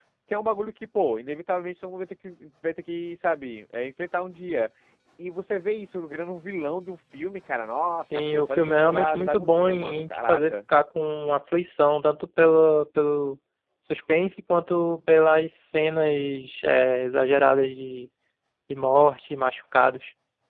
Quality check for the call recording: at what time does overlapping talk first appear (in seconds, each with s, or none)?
8.1 s